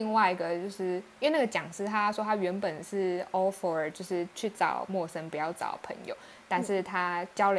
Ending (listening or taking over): listening